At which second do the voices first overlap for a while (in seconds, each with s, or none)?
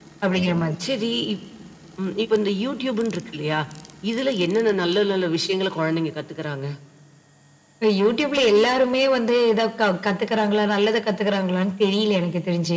none